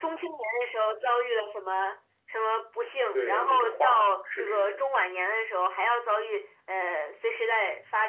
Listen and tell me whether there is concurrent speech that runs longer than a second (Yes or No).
Yes